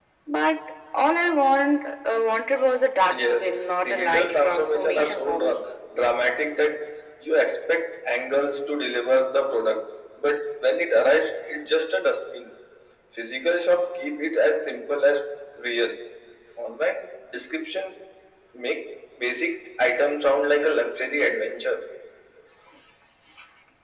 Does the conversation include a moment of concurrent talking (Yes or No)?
Yes